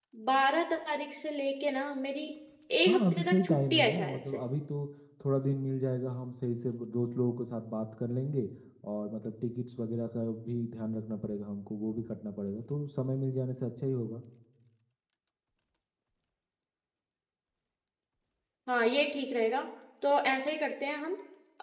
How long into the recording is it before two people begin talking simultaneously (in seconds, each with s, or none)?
2.9 s